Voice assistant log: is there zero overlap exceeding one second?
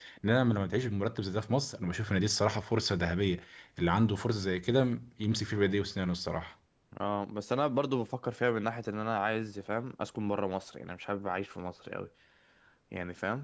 Yes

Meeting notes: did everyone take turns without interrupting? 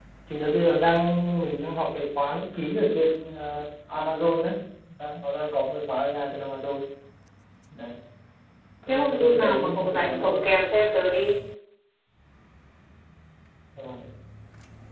No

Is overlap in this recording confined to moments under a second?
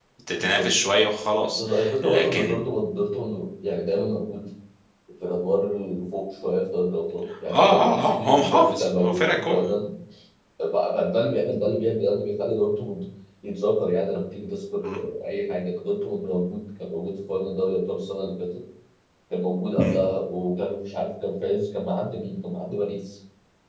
No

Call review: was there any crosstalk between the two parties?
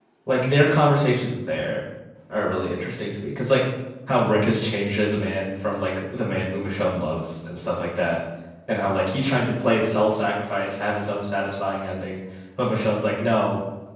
No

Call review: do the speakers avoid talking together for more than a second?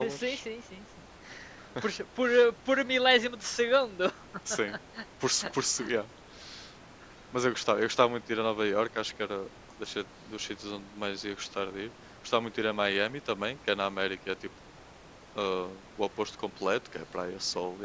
Yes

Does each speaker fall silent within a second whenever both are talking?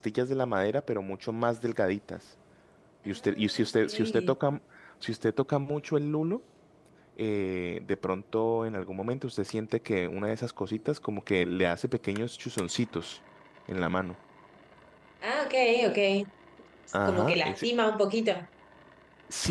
No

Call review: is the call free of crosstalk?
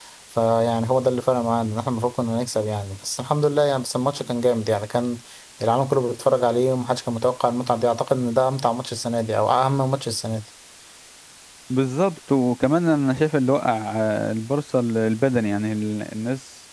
Yes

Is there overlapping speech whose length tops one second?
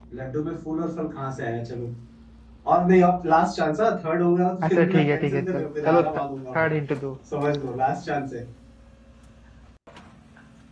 Yes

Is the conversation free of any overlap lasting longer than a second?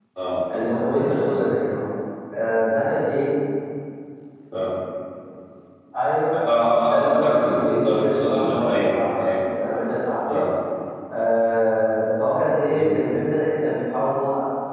No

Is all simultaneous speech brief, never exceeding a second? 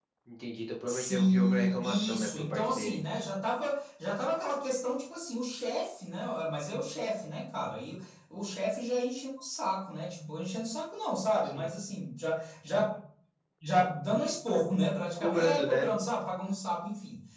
No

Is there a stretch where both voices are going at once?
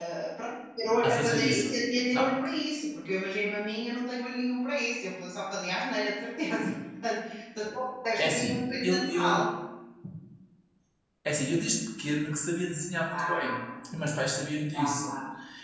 Yes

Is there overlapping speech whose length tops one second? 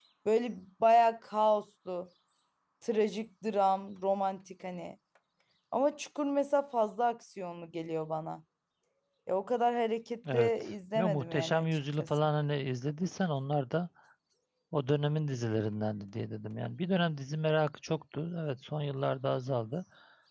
Yes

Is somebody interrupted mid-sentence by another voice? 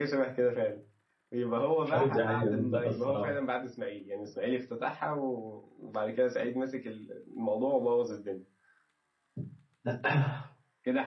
Yes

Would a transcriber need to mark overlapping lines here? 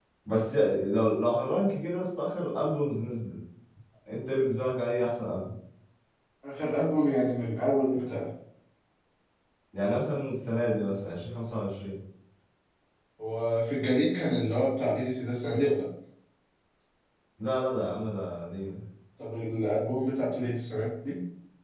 No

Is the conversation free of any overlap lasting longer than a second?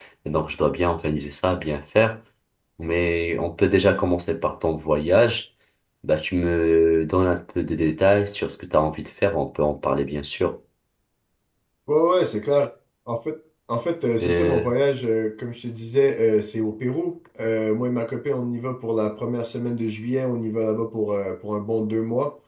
Yes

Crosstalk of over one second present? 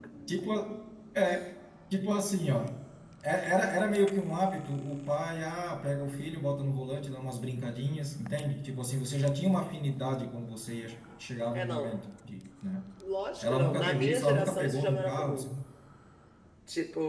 Yes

